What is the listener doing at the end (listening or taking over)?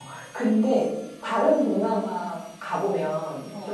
listening